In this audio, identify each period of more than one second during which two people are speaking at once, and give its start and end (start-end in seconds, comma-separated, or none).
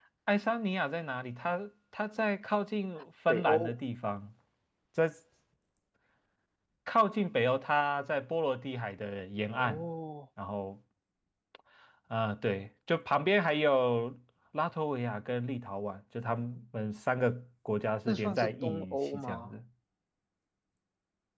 18.1-19.5